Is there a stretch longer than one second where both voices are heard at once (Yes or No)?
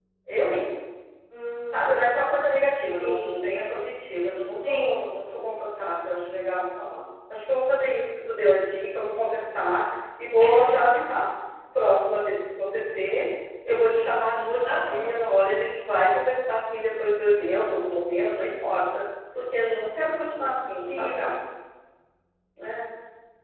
No